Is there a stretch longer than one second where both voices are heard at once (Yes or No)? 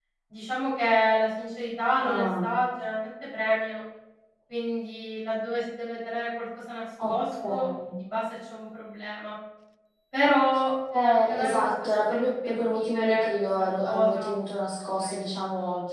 Yes